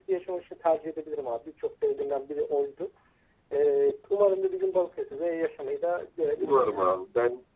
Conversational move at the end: taking over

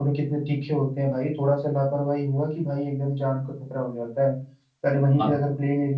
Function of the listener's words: listening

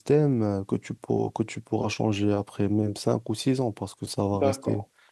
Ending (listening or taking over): taking over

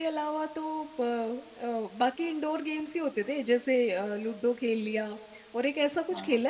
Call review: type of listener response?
listening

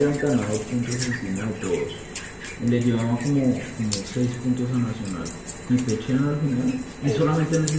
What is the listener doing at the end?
listening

